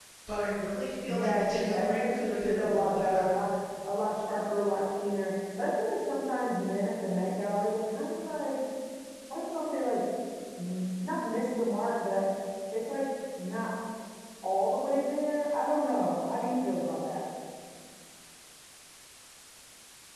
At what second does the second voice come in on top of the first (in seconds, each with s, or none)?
1.1 s